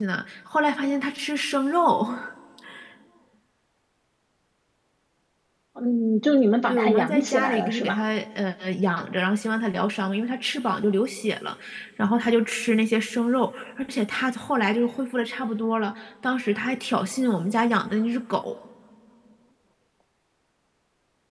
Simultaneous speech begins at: 6.7 s

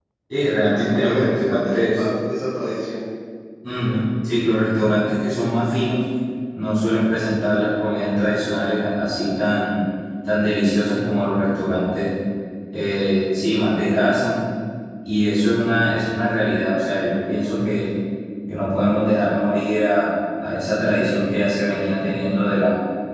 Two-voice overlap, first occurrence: 0.8 s

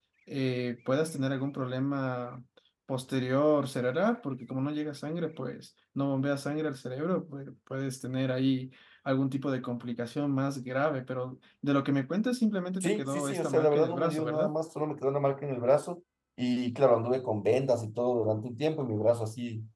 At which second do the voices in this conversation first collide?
12.8 s

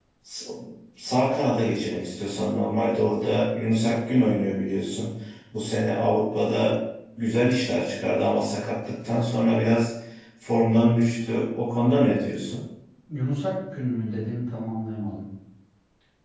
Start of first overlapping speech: none

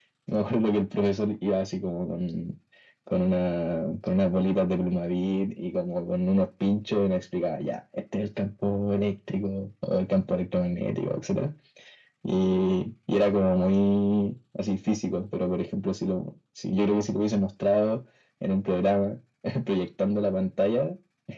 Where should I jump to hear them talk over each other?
none

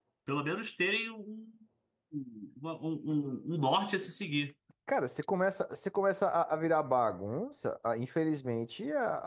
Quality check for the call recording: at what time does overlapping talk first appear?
none

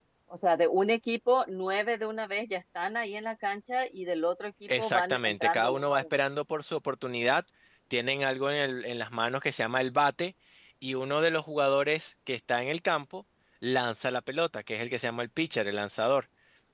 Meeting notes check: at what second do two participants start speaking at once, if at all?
4.7 s

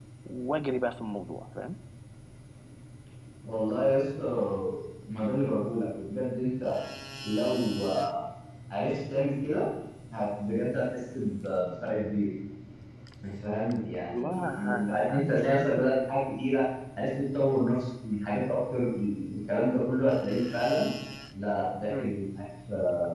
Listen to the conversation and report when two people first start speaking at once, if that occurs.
14.1 s

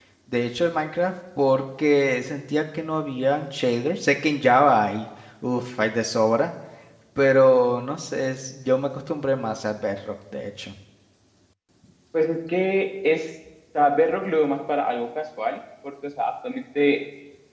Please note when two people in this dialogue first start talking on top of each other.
none

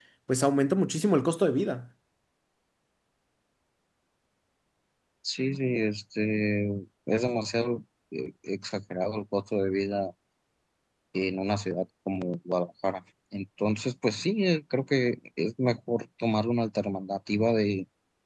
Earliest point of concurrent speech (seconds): none

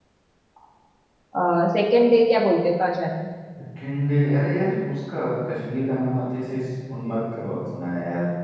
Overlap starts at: none

